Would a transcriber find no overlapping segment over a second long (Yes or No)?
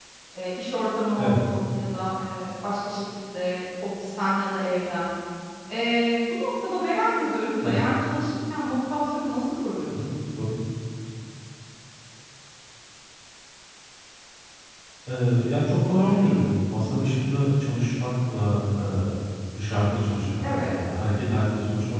Yes